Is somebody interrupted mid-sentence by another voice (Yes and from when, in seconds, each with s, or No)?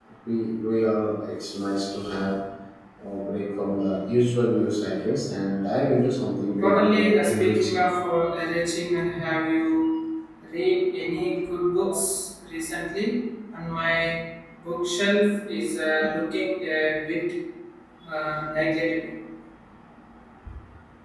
Yes, from 6.6 s